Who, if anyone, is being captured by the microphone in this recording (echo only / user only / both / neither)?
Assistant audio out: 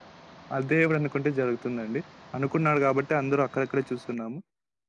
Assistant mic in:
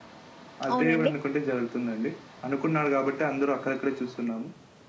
both